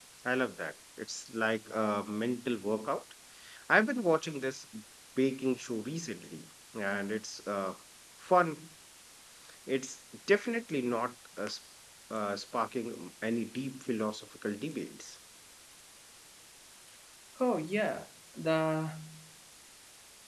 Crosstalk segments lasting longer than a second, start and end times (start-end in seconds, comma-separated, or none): none